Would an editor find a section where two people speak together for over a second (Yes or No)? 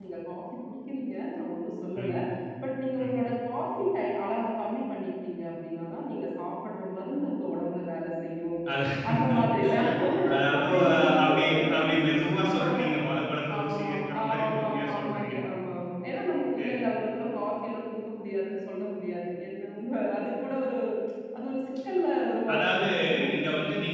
Yes